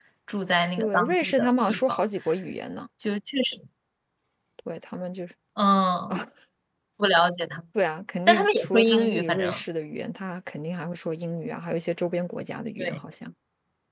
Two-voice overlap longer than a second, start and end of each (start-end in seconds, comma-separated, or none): 0.8-2.0, 8.3-9.6